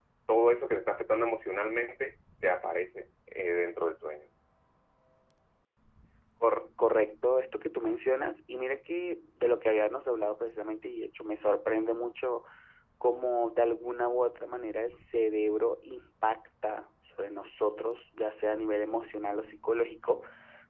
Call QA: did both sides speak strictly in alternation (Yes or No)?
Yes